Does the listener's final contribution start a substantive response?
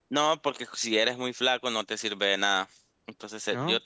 No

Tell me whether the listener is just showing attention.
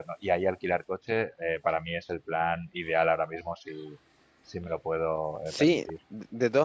No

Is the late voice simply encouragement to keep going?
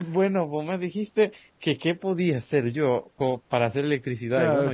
No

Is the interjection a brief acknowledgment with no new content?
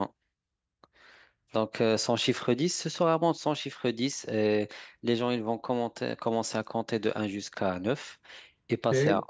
Yes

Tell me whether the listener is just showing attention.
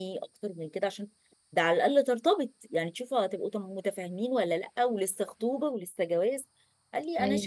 Yes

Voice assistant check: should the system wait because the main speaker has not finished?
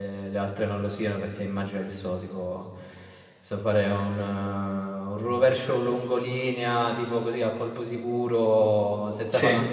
Yes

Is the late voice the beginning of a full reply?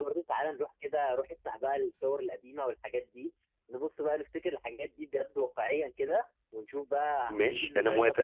Yes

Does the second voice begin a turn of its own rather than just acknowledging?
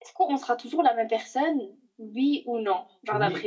Yes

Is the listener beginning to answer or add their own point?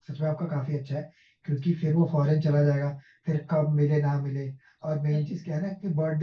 No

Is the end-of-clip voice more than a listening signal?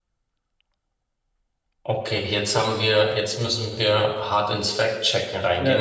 Yes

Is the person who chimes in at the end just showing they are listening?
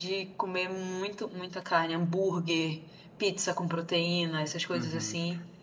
No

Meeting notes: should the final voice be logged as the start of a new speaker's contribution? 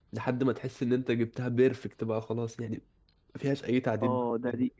Yes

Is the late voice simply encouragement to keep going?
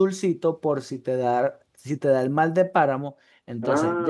No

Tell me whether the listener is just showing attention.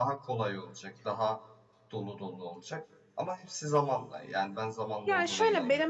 No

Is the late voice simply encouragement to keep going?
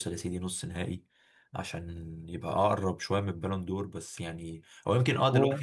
Yes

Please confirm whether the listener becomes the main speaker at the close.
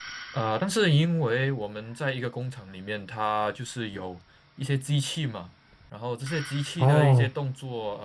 No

